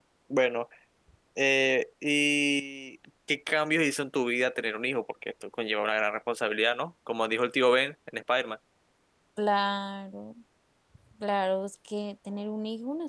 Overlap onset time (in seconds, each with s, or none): none